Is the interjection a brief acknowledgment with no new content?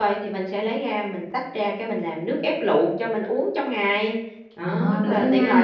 No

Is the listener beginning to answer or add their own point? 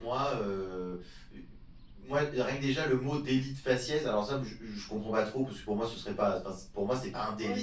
Yes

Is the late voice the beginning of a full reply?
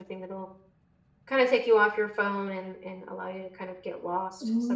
Yes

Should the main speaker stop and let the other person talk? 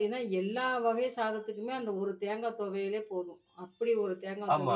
Yes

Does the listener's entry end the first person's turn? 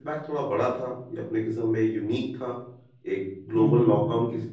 No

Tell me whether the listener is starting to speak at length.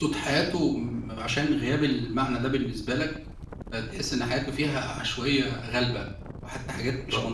Yes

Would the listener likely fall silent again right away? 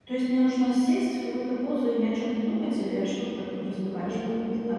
No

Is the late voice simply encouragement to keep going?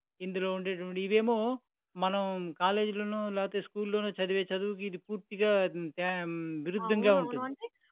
No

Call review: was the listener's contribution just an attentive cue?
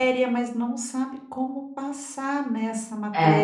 Yes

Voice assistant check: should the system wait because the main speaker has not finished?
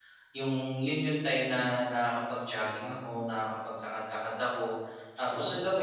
Yes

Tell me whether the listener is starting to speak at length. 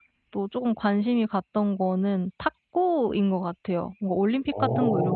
No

